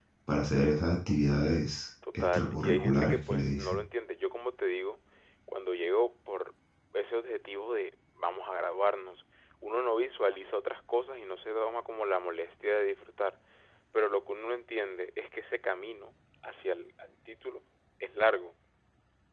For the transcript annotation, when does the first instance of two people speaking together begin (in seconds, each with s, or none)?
2.0 s